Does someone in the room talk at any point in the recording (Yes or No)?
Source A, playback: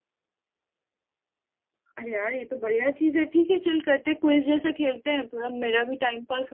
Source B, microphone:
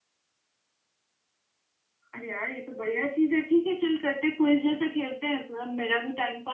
No